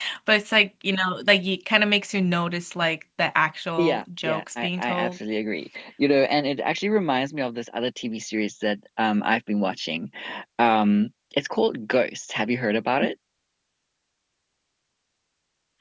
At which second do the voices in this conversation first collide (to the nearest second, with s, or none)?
4 s